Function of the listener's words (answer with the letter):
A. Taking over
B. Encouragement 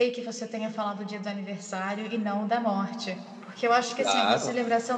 B